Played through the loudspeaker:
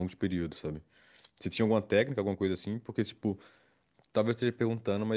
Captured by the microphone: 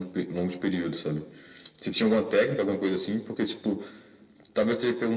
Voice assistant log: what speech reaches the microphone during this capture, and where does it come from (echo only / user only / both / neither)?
echo only